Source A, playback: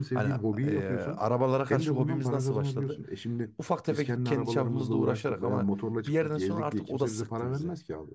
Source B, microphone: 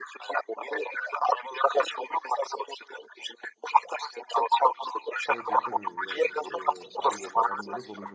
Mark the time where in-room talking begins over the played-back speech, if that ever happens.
5.2 s

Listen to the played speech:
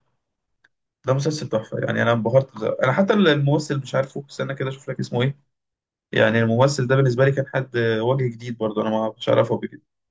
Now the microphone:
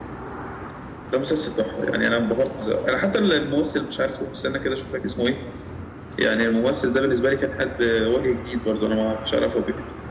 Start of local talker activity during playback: none

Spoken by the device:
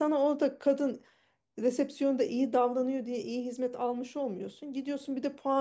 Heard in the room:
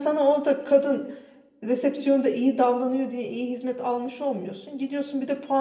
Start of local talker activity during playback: none

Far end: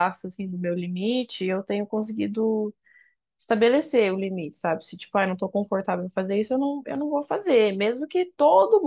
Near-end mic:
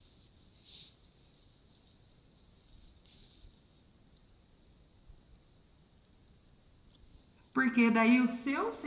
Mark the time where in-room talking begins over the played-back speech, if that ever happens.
7.5 s

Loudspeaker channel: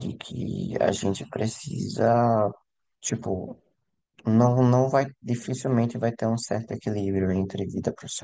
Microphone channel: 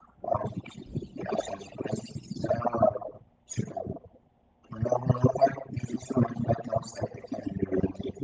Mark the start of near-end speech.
none

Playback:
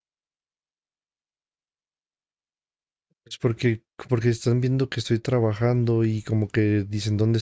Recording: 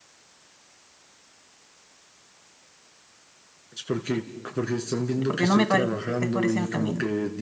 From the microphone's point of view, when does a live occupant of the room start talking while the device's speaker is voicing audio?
5.2 s

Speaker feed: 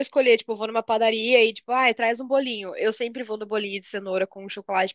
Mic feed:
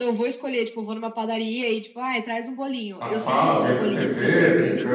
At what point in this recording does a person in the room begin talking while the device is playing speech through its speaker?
3.0 s

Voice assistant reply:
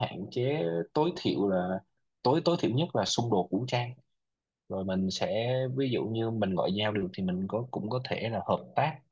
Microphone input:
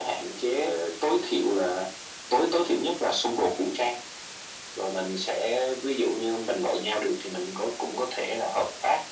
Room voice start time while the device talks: none

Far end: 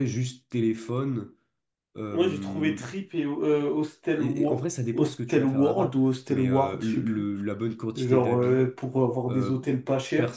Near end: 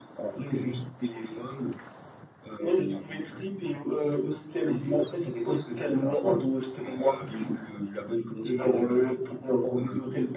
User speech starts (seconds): none

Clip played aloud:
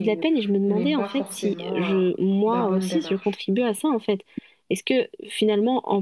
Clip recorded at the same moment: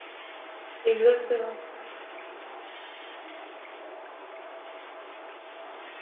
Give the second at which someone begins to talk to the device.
0.8 s

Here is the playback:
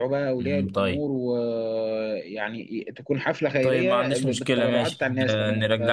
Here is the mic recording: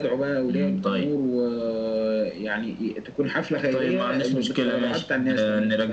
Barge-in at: none

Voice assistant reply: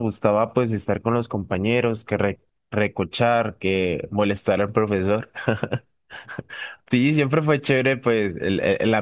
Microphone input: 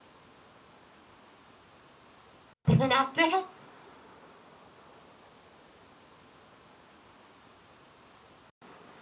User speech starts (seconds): 2.6 s

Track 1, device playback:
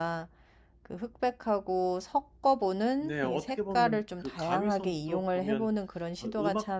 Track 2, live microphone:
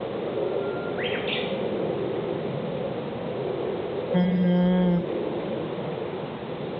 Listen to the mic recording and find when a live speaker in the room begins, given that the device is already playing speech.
4.1 s

